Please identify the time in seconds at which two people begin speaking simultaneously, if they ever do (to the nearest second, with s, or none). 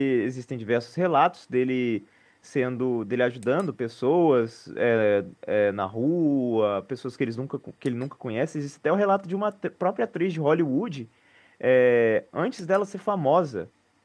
none